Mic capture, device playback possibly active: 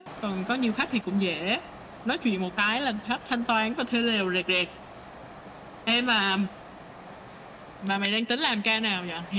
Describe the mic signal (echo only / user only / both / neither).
echo only